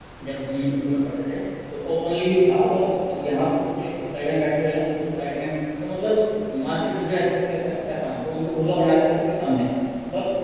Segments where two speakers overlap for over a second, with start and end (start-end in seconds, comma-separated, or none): none